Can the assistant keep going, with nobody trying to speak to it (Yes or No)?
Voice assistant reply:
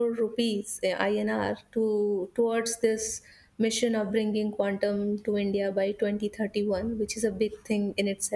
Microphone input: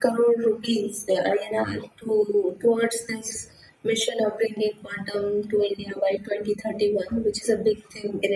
Yes